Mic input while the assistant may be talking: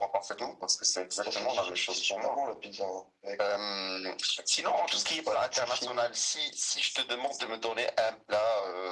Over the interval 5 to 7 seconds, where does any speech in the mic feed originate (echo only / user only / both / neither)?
echo only